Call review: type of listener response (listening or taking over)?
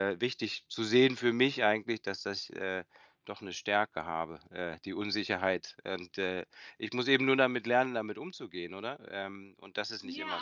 taking over